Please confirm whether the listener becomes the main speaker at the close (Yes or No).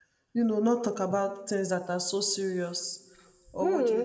Yes